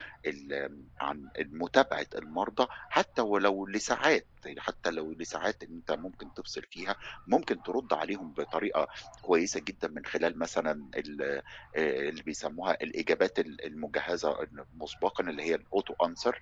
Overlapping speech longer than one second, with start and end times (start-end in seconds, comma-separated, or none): none